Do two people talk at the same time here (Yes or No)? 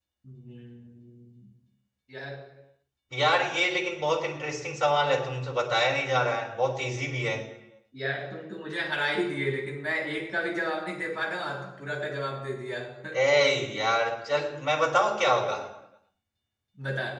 No